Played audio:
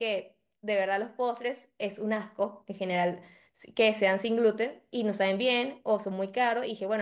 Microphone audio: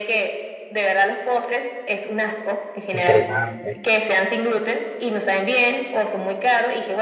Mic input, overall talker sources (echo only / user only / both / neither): both